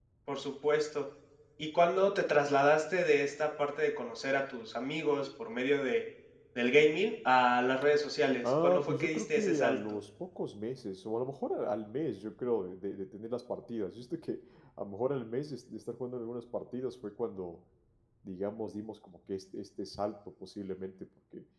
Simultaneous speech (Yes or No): Yes